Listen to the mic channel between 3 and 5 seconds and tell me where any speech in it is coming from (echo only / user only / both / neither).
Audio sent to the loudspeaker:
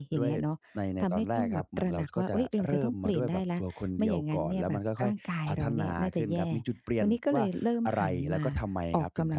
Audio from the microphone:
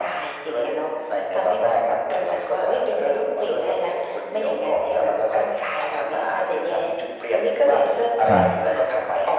echo only